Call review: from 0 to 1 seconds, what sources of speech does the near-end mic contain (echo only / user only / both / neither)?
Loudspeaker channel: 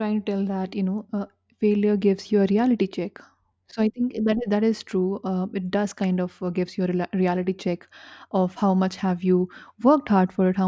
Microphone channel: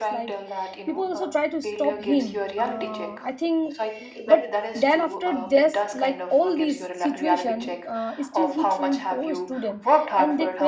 both